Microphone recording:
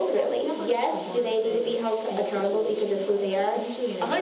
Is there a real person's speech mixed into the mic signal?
No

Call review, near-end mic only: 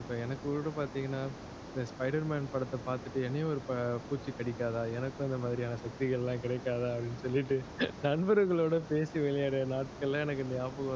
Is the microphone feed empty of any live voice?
No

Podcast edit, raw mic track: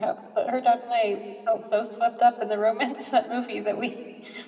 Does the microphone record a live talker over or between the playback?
Yes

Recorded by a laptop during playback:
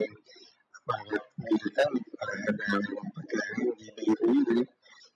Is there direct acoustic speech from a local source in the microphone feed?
No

